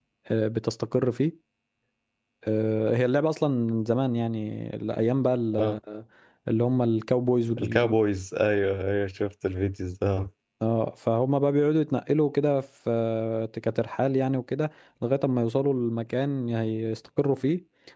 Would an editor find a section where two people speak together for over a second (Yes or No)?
No